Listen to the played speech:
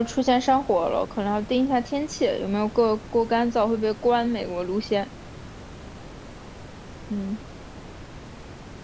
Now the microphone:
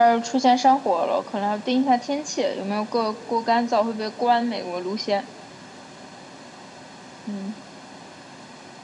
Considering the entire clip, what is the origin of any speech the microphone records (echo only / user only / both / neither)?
echo only